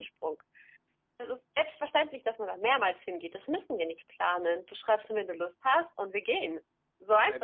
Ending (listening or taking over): taking over